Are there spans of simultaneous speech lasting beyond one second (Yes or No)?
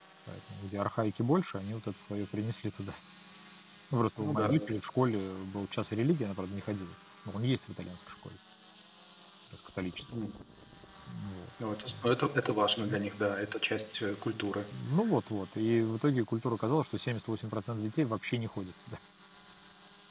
No